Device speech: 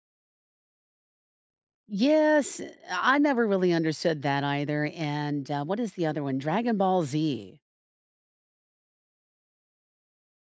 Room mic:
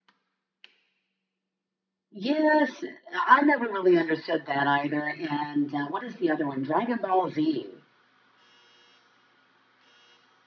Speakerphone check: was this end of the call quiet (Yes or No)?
Yes